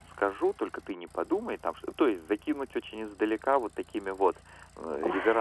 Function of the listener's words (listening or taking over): listening